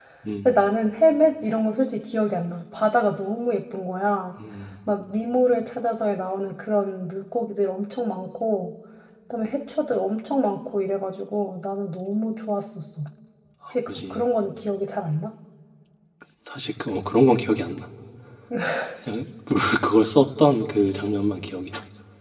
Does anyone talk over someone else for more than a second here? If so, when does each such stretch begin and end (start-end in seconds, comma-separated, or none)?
none